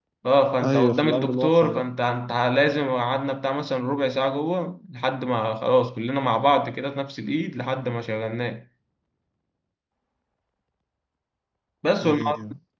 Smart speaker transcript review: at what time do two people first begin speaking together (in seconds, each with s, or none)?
0.6 s